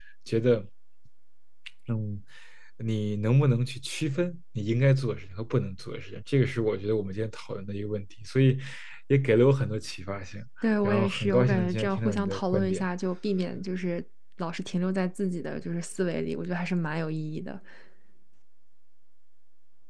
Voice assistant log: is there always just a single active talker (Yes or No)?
No